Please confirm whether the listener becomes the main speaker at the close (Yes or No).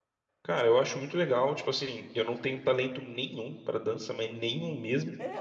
Yes